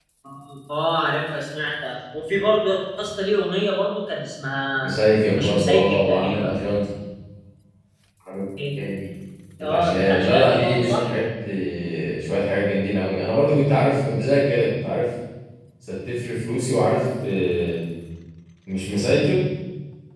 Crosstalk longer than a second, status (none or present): present